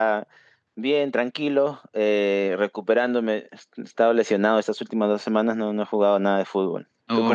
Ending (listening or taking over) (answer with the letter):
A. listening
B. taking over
B